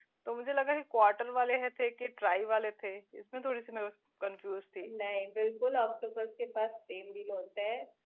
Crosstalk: none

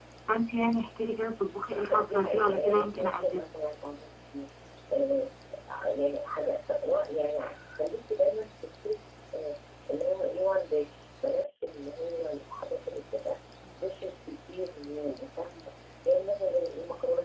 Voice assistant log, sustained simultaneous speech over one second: present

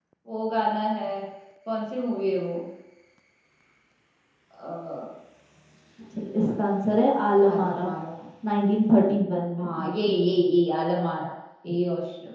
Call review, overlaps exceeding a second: none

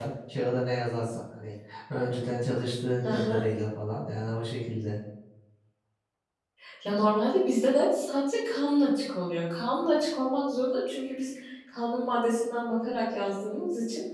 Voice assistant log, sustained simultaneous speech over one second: none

